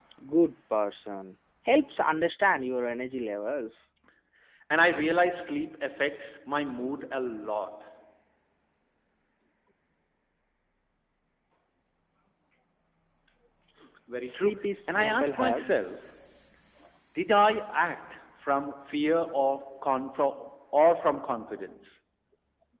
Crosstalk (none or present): present